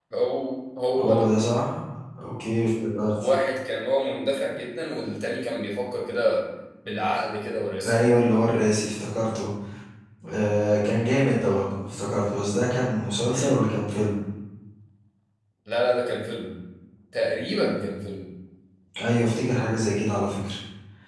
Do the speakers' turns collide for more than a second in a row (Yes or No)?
No